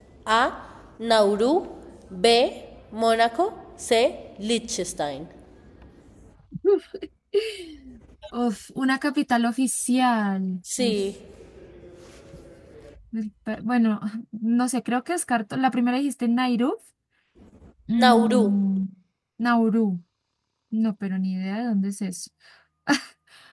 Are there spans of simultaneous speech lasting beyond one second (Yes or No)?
No